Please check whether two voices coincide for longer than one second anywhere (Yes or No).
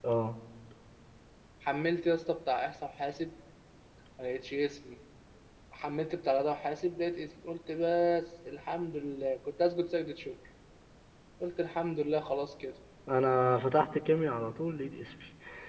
No